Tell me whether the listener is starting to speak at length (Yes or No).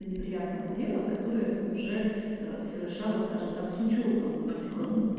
Yes